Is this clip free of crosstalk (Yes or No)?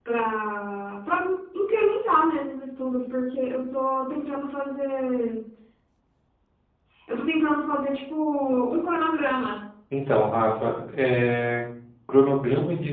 Yes